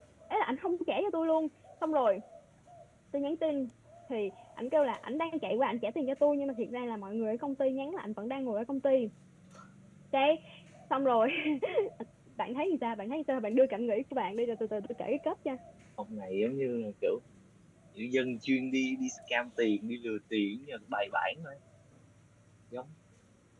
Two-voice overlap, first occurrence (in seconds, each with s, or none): none